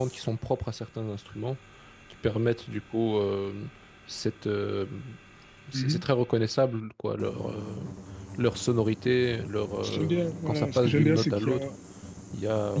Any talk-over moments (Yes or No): Yes